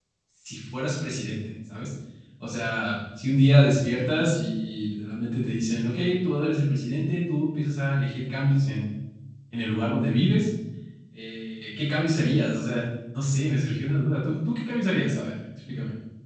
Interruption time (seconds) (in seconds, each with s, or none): none